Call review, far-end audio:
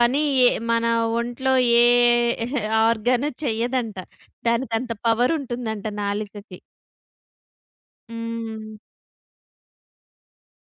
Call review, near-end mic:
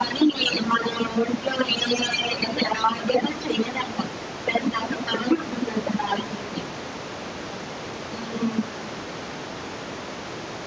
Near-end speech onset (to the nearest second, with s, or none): none